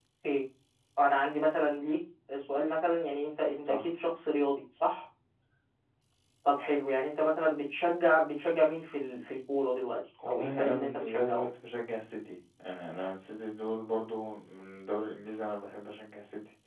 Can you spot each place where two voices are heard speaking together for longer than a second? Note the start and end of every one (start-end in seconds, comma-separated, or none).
10.3-11.5